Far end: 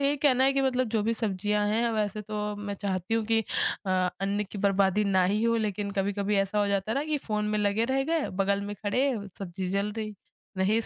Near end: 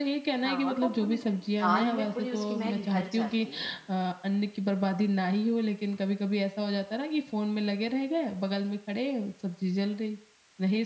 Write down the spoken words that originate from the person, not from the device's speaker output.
हाँ, और वो पूरी दाल में पूरी उसकी महक भर जाती है।

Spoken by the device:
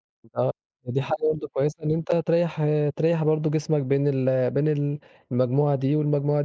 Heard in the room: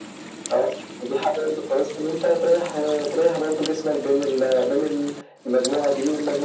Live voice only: none

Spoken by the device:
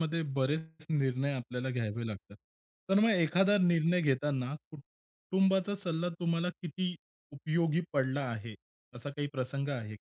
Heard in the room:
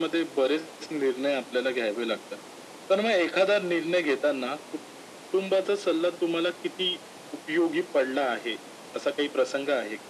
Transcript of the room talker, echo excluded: none

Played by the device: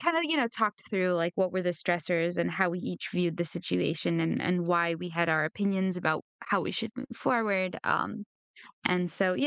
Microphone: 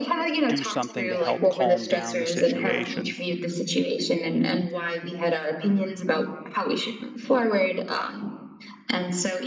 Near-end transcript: do something to help calm down the situation

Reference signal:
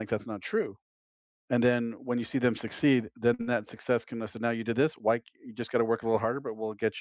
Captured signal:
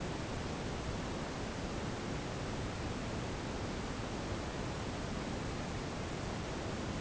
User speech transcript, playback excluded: none

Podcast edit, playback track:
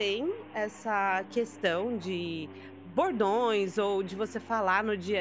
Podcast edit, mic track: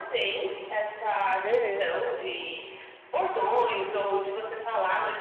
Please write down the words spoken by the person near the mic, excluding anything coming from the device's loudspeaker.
Aham.

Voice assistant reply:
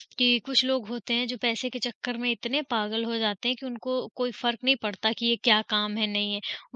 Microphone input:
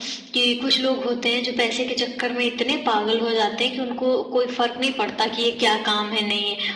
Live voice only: none

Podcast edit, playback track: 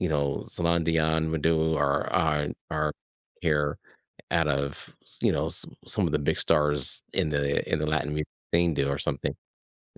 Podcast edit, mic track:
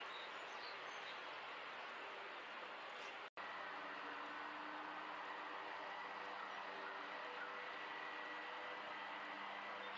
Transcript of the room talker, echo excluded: none

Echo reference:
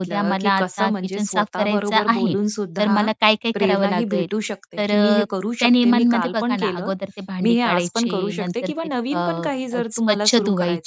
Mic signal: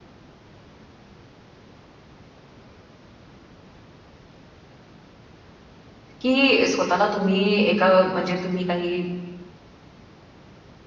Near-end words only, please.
की स्वतःला तुम्ही एका म्हणजे तुम्ही काही

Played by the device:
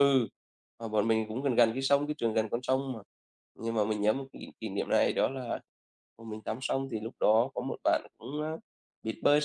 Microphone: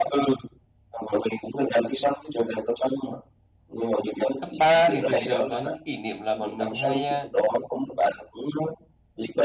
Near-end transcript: cấp 3 thì thường thường có những cái kỷ niệm là bọn mình hay, à,

